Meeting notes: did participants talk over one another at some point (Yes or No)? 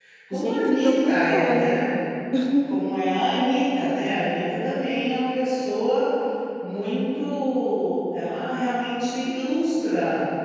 Yes